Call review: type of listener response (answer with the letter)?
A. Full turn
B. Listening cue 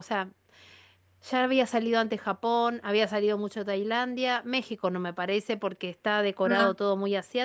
B